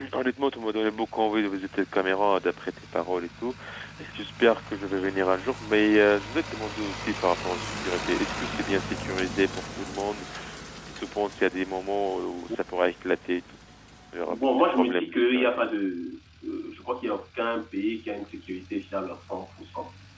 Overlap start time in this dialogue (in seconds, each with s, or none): 14.3 s